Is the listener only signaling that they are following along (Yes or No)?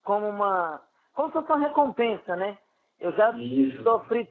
Yes